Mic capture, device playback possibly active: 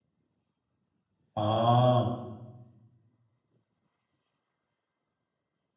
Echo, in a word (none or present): none